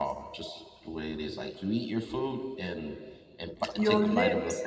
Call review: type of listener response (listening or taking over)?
taking over